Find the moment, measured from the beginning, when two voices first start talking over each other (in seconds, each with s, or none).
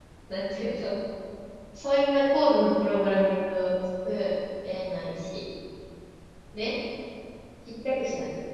none